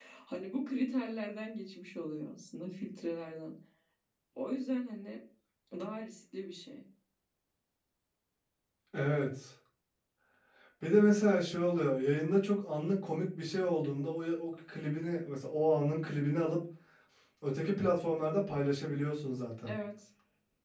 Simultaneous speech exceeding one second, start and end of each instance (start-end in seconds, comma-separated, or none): none